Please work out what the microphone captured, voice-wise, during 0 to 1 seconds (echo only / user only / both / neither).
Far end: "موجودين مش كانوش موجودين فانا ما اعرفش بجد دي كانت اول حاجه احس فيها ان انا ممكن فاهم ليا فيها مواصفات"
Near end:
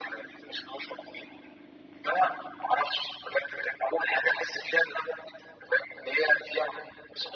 echo only